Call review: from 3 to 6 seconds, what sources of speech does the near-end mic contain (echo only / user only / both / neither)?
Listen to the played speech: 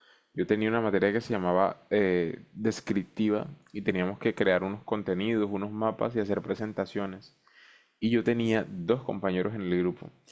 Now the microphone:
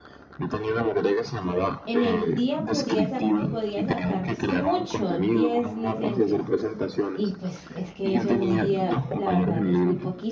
both